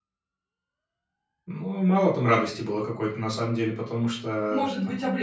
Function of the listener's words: taking over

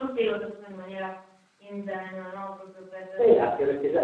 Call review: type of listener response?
taking over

